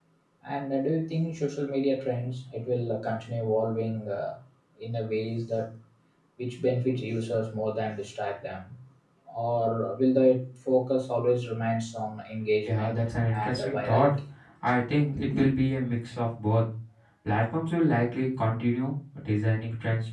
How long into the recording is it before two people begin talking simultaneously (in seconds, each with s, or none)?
12.7 s